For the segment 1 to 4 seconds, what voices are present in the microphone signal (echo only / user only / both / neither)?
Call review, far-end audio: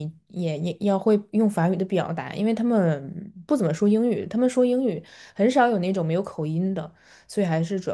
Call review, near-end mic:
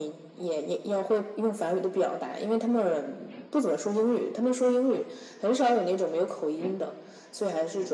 echo only